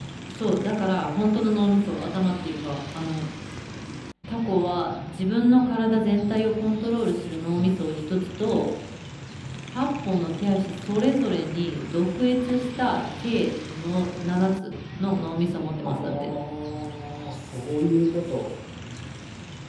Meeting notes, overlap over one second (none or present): none